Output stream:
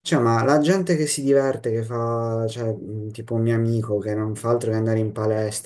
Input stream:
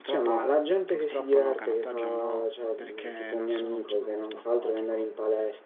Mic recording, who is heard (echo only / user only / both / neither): both